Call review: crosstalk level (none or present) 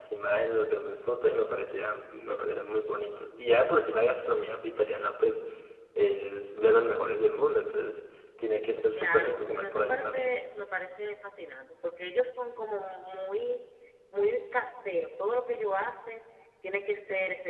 present